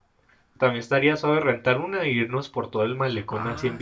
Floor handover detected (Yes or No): Yes